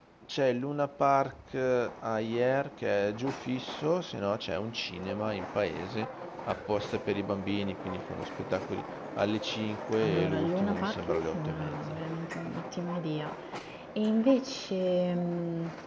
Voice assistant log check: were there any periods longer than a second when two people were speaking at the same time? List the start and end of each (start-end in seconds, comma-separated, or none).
10.0-12.0